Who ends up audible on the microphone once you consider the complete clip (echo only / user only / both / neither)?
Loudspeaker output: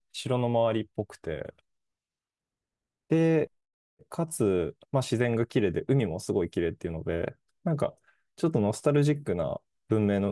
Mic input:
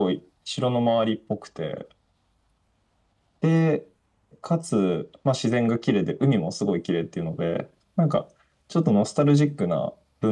echo only